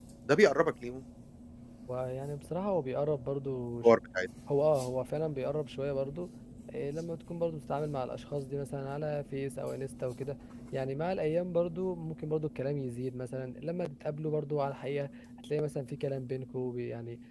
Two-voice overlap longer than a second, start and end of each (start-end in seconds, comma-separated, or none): none